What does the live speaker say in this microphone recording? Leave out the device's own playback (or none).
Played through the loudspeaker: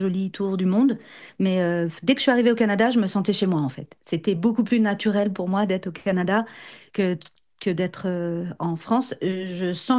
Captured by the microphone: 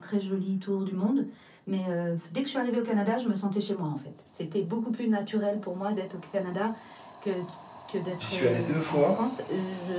J'y suis allé deux fois.